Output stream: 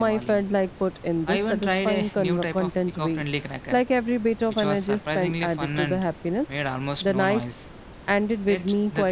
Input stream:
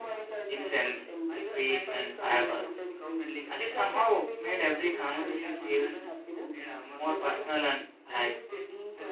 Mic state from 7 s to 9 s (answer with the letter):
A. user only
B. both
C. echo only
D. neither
B